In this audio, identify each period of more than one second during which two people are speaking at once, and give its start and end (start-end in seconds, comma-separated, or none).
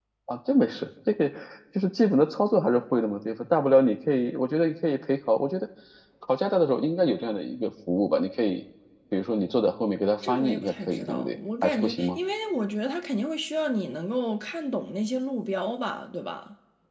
10.2-12.2